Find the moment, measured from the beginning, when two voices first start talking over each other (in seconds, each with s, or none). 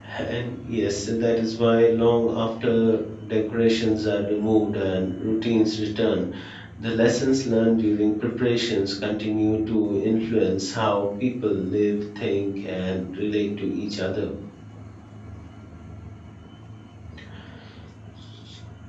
none